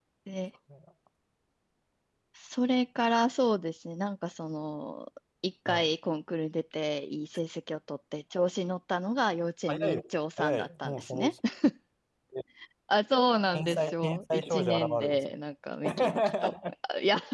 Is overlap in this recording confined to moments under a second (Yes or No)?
No